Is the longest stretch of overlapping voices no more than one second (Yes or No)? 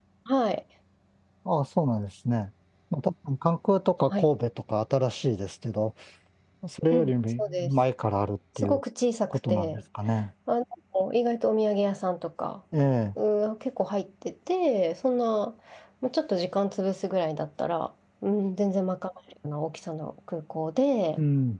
Yes